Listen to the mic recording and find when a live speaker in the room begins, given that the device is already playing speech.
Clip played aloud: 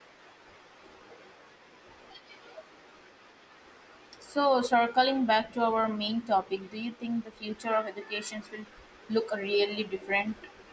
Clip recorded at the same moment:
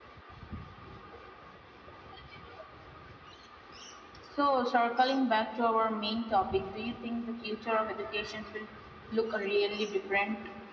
none

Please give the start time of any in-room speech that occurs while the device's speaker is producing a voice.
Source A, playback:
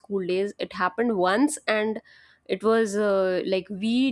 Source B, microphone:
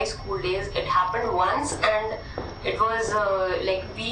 none

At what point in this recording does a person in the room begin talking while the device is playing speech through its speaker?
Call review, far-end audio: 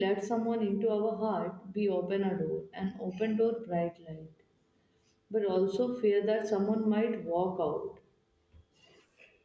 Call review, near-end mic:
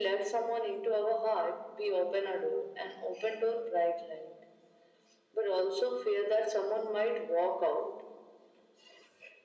none

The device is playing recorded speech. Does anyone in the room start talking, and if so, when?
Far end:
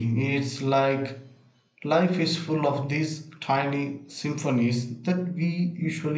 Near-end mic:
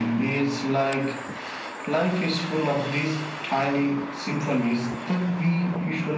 none

